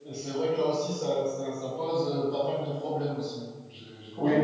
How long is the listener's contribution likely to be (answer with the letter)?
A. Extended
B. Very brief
A